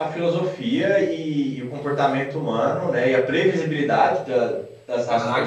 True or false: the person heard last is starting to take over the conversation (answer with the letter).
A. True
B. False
A